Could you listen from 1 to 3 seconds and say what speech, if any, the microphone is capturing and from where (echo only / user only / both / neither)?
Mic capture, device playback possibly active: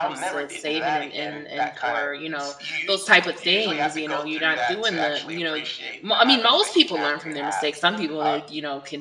both